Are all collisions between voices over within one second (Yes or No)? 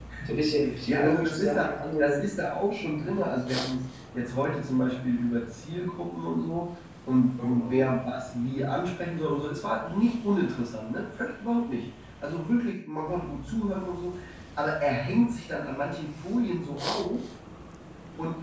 No